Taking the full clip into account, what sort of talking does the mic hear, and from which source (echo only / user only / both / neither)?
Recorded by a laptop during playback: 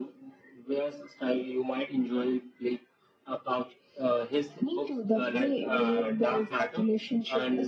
echo only